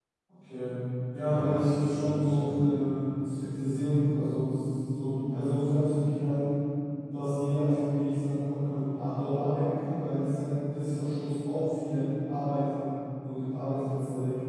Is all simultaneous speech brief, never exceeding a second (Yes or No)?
No